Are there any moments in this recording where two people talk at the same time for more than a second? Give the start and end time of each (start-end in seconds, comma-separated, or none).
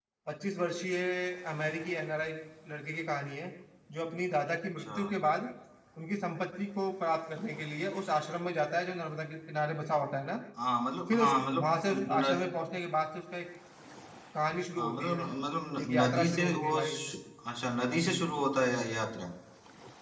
11.1-12.5, 15.8-17.2